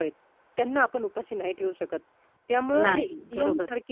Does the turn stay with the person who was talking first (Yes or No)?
Yes